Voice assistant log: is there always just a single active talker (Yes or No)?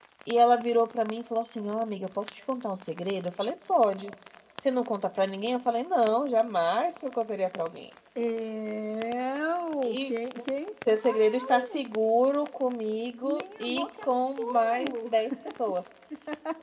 No